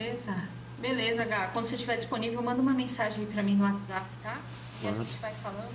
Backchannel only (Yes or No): Yes